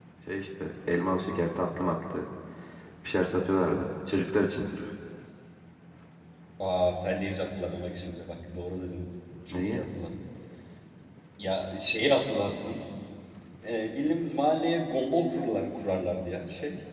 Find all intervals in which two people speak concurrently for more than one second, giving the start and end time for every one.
none

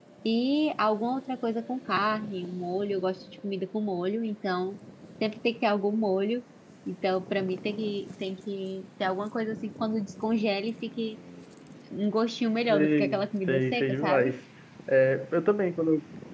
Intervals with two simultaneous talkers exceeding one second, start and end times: 12.7-14.3

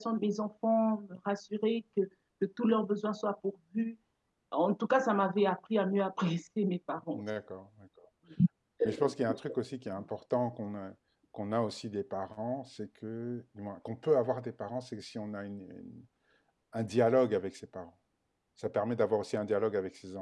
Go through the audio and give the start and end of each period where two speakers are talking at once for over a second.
none

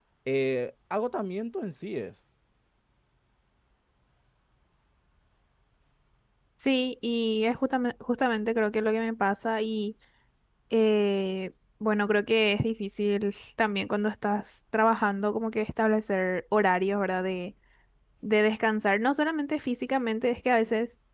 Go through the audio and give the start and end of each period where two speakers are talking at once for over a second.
none

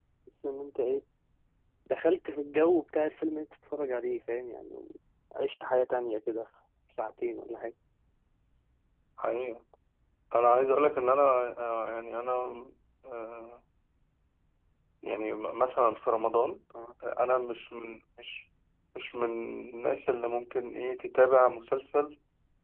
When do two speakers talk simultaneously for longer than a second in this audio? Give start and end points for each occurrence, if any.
none

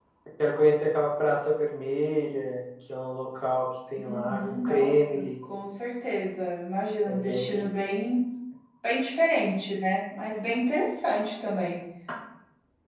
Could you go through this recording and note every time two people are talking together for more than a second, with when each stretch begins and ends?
4.0-5.2

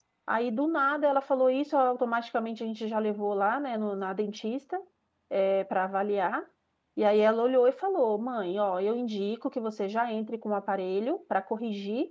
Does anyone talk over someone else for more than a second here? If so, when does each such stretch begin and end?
none

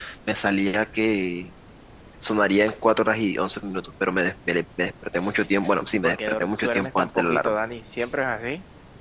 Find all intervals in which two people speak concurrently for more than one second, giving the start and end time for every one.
5.9-7.5

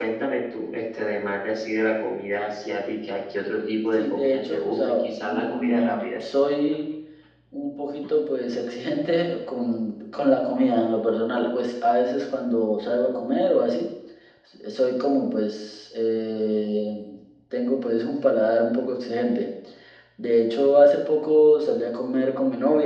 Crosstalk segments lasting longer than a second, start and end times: 3.9-6.1

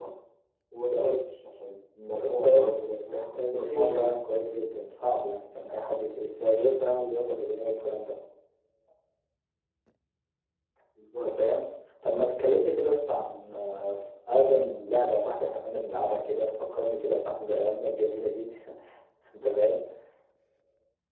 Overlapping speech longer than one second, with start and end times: 3.1-4.4

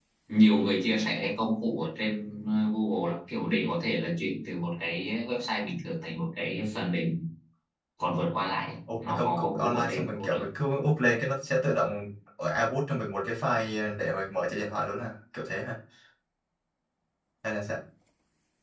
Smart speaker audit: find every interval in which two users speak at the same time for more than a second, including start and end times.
8.9-10.5

